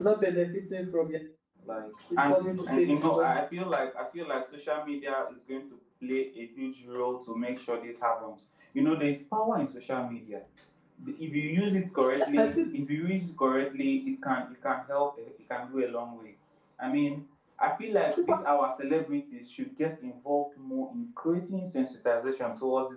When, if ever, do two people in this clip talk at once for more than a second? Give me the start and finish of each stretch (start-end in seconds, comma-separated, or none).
2.2-3.4